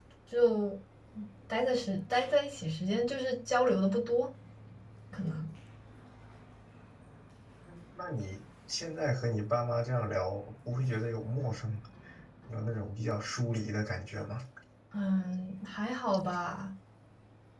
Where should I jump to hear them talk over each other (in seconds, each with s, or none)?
none